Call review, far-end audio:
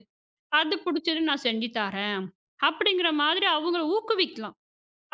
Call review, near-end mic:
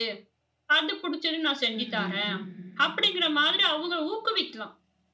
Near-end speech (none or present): present